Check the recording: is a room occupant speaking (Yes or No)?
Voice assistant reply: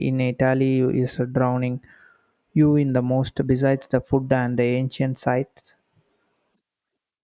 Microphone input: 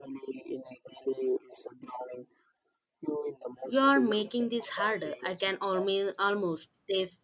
Yes